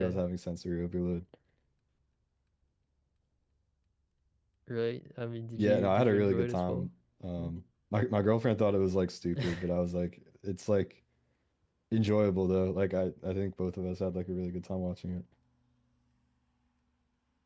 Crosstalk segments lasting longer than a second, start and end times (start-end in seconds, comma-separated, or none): 5.6-6.9